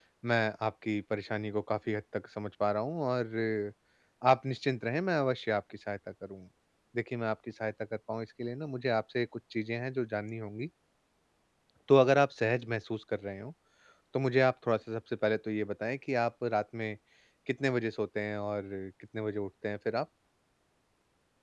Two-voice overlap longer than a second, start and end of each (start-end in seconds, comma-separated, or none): none